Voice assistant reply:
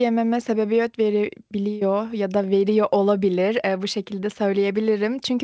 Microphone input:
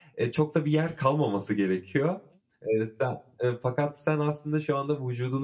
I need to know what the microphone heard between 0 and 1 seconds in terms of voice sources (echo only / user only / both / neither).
user only